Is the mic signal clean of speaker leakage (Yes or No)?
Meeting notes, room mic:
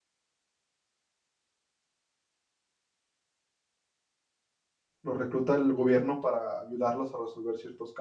Yes